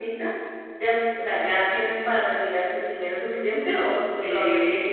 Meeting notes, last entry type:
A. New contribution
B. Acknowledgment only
A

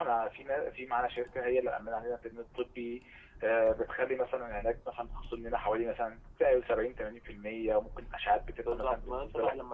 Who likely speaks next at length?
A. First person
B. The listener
B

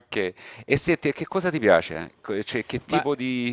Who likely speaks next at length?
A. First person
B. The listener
B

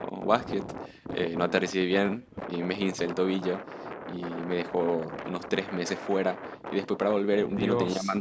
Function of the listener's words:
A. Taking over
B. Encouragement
B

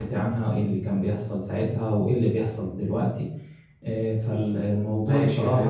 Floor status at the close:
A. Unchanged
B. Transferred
B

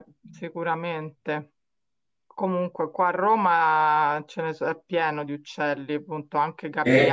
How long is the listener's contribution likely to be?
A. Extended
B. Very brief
B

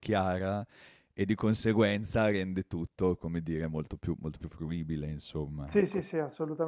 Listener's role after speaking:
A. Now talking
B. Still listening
A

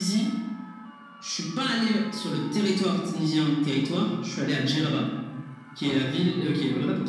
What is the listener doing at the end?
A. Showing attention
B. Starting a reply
A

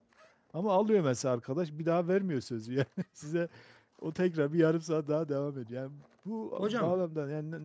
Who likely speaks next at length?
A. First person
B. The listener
A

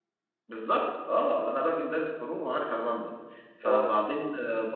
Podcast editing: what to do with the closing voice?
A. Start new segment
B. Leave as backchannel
B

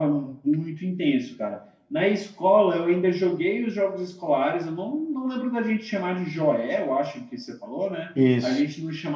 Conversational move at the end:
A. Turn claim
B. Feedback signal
B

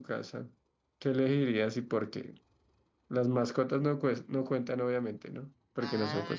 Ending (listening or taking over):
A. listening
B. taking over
B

